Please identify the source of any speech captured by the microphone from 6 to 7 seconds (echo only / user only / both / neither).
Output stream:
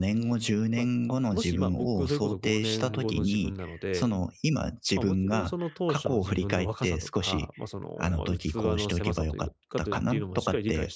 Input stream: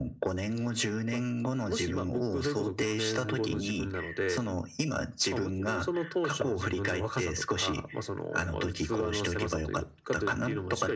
echo only